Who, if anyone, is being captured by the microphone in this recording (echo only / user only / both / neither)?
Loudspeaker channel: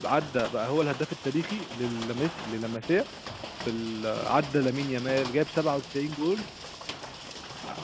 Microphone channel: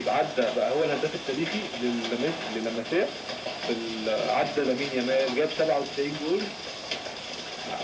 echo only